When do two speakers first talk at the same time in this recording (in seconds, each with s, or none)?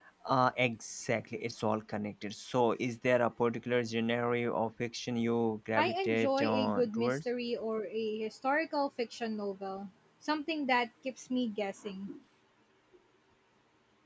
5.8 s